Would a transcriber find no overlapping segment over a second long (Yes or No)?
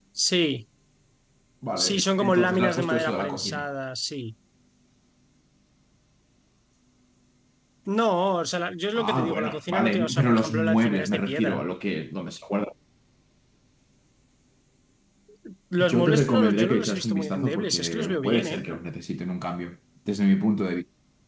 No